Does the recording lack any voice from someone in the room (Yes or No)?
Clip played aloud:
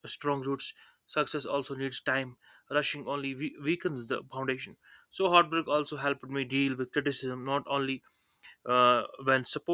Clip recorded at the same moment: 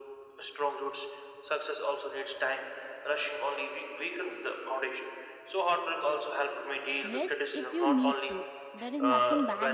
No